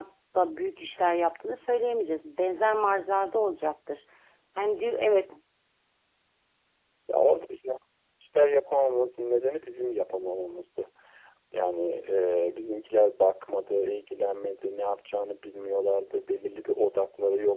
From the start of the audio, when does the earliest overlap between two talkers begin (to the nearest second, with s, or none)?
none